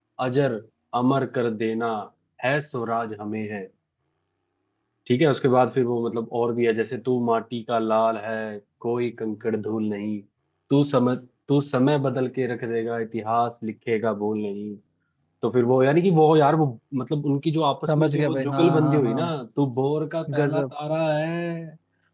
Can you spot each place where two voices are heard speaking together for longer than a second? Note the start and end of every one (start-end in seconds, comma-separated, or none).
17.9-19.2